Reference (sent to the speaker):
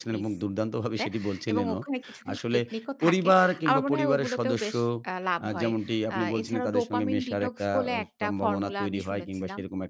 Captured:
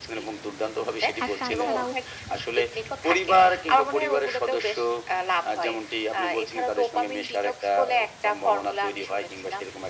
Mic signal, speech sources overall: both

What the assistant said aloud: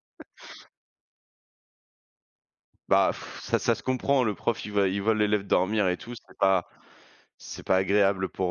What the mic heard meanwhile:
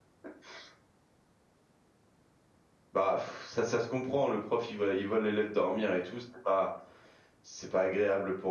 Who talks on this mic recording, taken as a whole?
echo only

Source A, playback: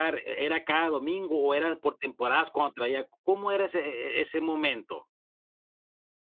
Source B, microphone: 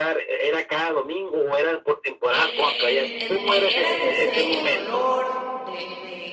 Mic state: both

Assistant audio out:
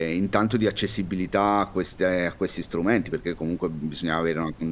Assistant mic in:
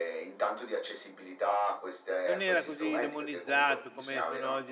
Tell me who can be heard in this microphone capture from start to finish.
both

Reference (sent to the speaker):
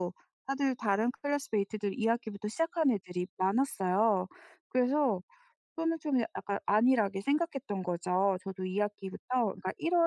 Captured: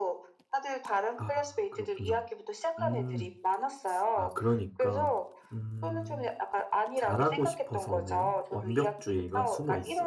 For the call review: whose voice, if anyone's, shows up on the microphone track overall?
both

